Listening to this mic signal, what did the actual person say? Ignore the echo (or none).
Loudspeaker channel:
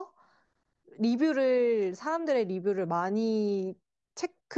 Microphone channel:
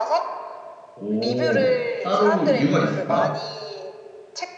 오, 따로 이유가 있을까?